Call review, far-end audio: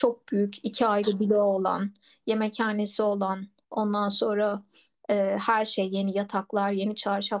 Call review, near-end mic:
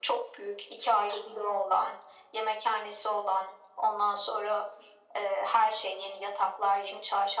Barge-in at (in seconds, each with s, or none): none